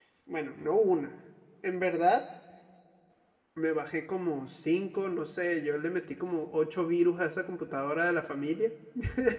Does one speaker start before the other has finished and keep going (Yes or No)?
No